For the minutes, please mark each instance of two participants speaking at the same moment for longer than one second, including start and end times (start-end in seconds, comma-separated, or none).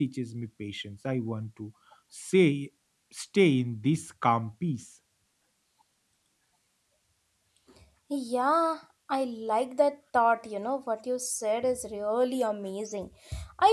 none